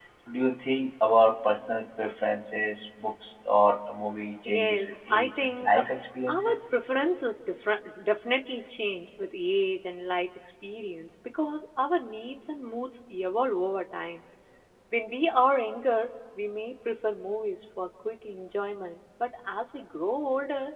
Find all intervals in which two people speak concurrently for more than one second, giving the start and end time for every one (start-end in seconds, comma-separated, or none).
4.5-5.8